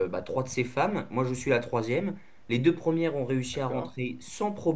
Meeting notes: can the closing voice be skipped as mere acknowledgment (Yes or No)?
Yes